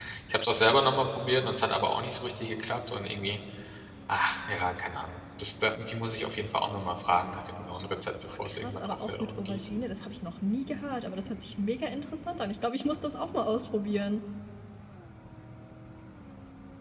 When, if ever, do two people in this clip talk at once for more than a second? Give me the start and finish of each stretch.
8.2-9.7

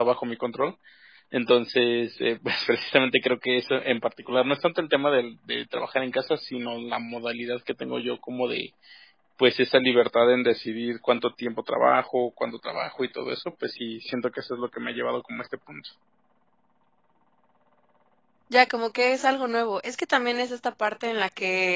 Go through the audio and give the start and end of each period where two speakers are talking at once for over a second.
none

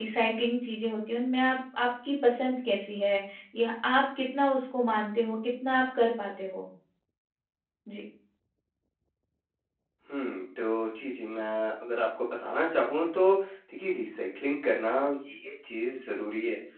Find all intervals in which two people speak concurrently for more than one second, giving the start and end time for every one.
none

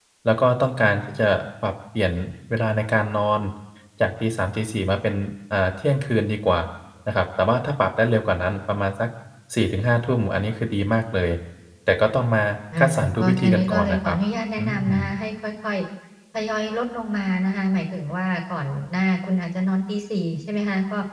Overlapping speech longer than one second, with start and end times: 12.8-14.2

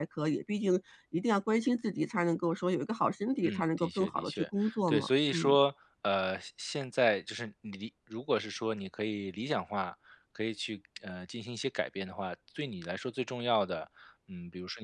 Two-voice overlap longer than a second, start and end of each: 3.4-5.6

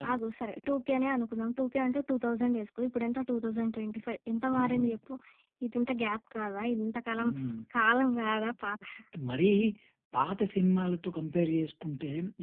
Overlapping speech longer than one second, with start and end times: none

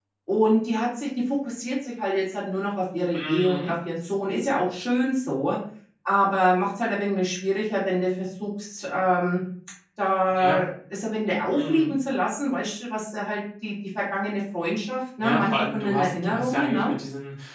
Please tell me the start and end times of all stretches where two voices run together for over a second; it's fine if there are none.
15.2-16.9

